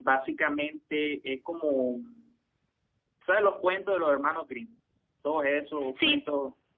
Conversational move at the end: listening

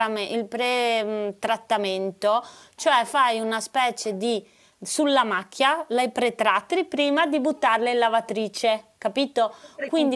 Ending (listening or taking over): listening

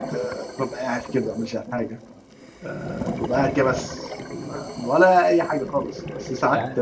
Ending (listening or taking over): listening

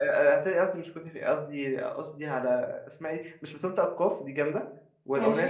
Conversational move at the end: listening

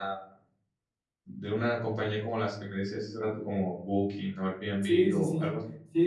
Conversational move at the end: taking over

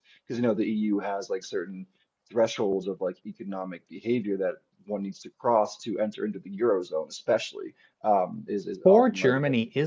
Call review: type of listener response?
taking over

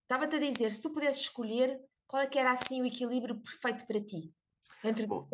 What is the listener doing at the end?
taking over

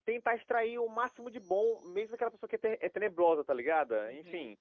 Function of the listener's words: taking over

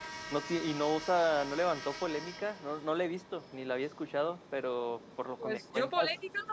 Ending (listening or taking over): taking over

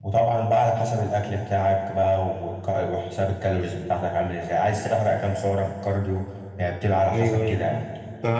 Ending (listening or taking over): taking over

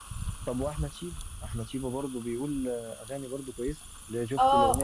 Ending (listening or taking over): taking over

